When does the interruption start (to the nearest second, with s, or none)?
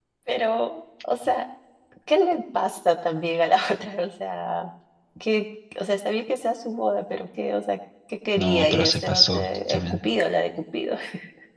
8 s